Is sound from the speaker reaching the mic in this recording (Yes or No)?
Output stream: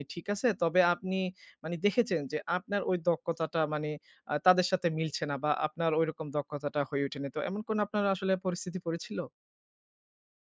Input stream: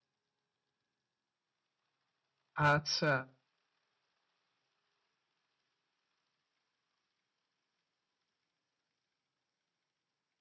No